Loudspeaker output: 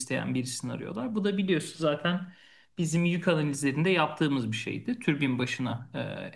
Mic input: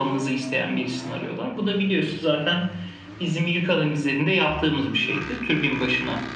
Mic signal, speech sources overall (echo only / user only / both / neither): echo only